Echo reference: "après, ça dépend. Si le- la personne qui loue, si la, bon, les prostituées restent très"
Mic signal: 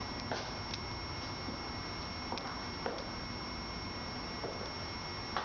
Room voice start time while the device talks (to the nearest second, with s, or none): none